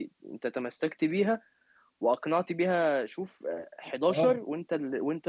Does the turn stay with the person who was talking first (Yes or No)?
Yes